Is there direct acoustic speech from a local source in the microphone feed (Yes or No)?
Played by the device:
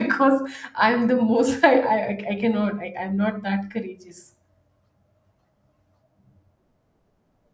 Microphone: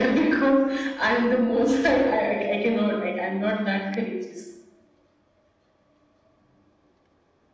No